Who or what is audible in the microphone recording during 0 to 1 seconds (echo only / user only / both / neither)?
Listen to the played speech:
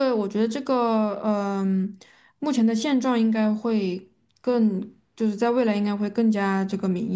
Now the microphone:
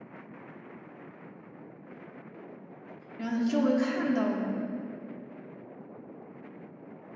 neither